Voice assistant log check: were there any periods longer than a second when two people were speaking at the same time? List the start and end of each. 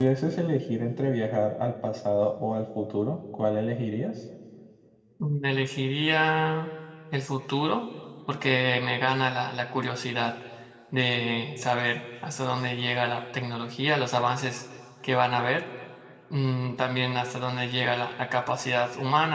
none

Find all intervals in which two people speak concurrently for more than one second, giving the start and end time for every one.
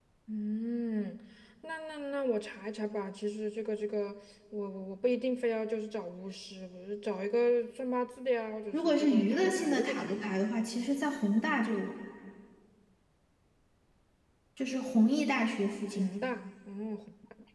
8.7-10.2

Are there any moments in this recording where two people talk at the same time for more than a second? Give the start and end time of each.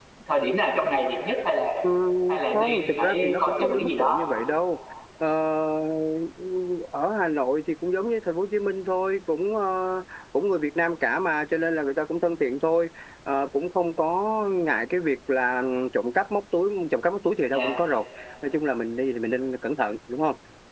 2.5-4.2

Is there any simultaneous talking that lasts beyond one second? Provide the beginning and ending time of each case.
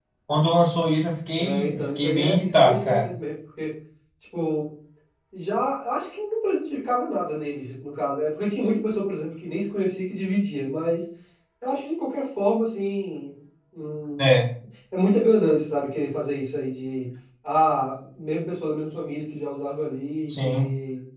1.4-3.1

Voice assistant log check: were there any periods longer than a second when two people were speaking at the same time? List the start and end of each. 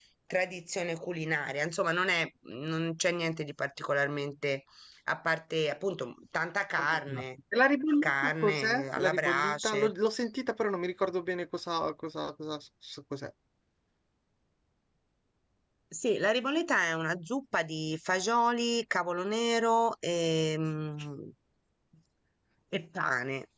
8.0-9.9

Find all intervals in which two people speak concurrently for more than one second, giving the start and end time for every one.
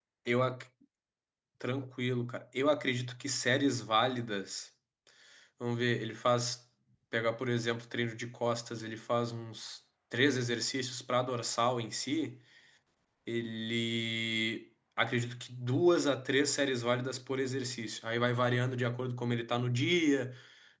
none

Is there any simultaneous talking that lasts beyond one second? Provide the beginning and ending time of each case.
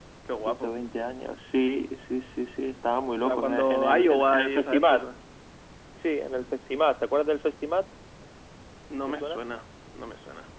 3.2-5.0

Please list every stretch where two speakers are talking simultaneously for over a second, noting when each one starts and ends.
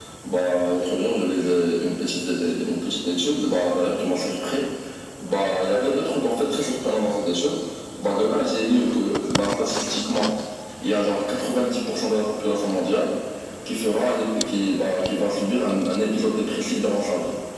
none

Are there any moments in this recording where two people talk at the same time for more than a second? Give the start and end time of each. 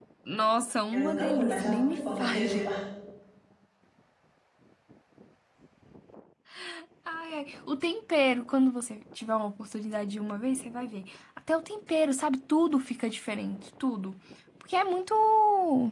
0.9-2.6

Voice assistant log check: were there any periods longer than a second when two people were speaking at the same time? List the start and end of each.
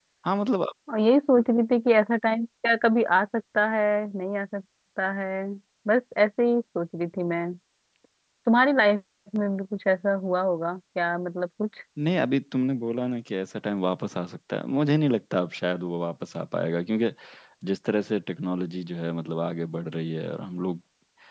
none

